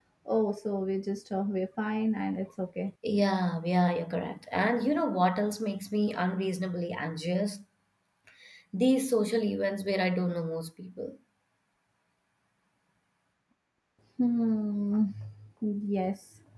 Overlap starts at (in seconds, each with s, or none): none